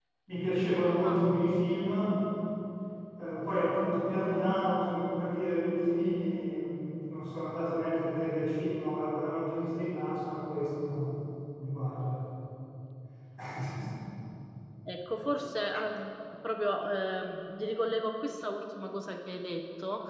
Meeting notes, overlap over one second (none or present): none